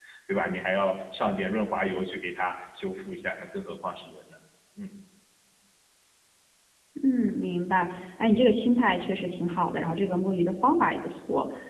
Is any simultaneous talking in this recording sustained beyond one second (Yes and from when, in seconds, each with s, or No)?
No